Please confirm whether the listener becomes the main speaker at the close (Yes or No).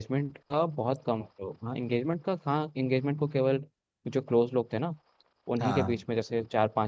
No